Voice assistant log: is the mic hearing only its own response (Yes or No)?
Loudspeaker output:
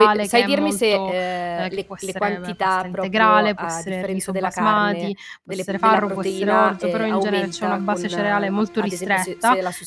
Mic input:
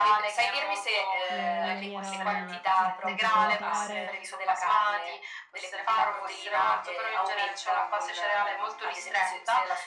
No